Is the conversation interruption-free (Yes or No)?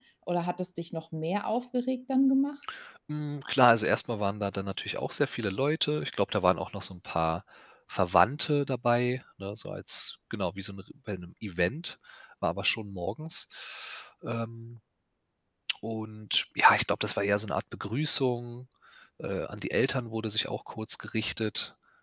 Yes